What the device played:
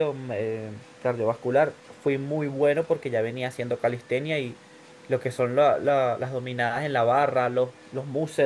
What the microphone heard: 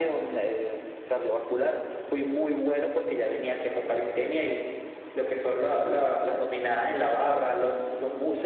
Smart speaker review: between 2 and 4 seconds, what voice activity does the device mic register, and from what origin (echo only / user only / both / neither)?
echo only